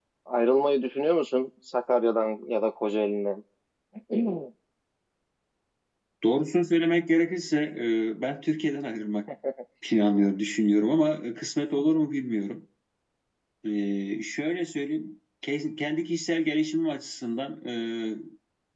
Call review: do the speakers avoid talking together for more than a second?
Yes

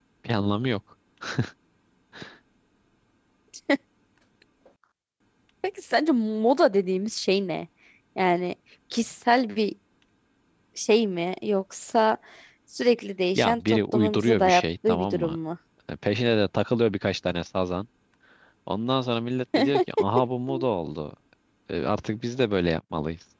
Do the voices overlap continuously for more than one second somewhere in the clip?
Yes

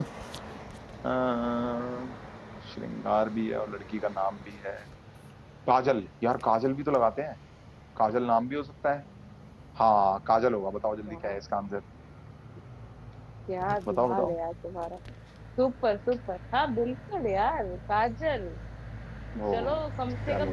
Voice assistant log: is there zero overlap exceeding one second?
Yes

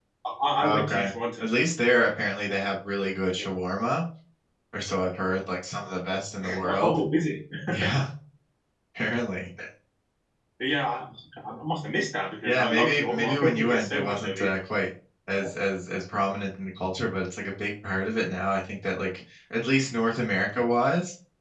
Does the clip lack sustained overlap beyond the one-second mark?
No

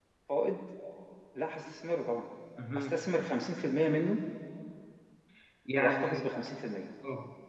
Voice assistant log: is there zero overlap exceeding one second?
Yes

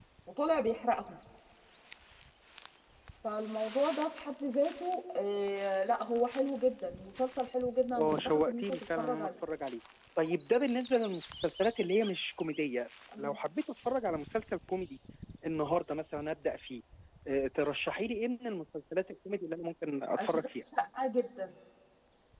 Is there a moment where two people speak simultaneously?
Yes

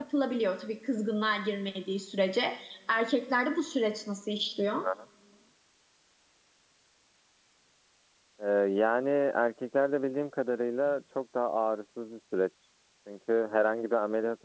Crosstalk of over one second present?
No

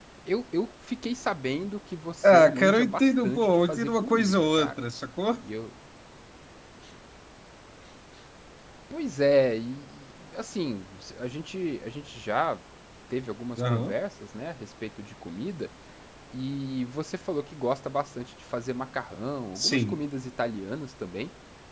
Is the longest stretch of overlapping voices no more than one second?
No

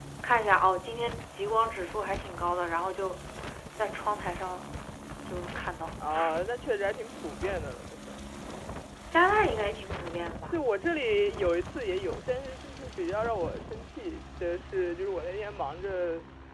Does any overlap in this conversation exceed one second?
No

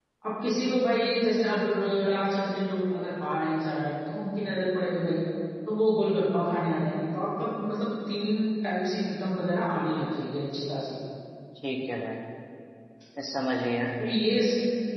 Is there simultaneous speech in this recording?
No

